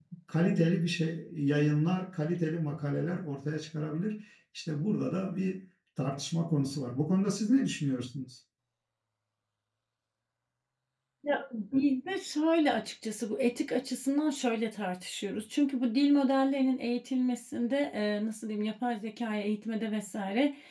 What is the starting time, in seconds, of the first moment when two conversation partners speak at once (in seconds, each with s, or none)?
none